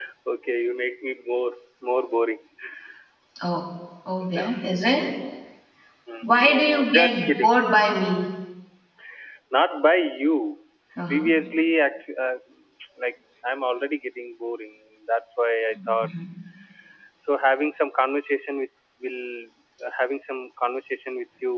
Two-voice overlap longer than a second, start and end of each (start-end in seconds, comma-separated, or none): 6.2-7.6